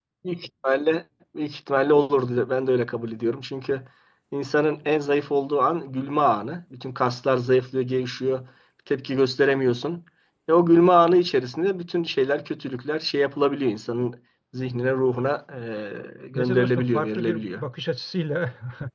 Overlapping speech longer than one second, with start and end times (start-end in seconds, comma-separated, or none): 16.4-17.6